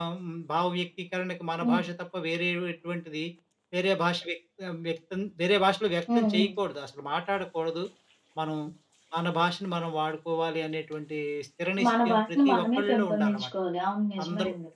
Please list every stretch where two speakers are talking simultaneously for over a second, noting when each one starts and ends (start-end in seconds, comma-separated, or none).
11.9-13.5